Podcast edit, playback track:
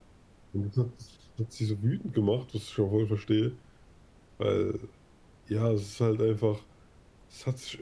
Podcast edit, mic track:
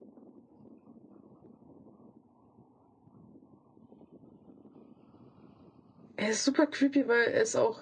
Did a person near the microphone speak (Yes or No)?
Yes